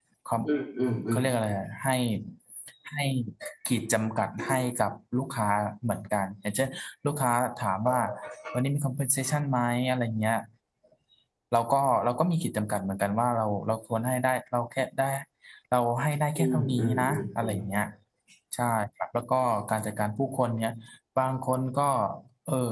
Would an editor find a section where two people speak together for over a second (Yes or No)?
Yes